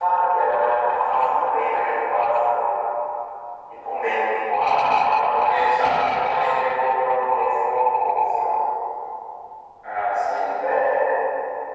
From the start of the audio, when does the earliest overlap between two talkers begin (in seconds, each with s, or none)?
5.3 s